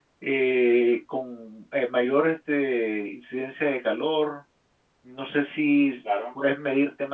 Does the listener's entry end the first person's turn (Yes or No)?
No